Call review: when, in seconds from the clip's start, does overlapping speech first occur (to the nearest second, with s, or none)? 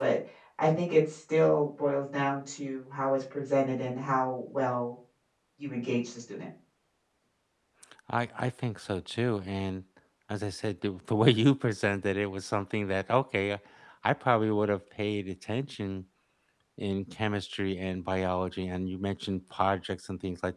none